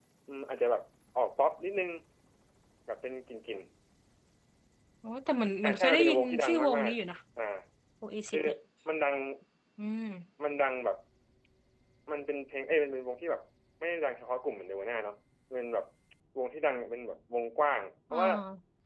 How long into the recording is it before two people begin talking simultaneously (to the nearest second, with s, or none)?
6 s